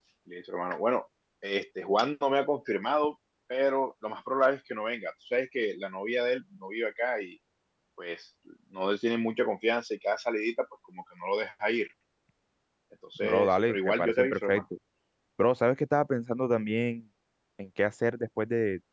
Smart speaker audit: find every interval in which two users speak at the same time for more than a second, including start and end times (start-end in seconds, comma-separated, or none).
13.2-14.6